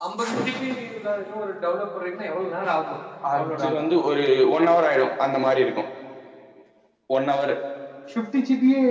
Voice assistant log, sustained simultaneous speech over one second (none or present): none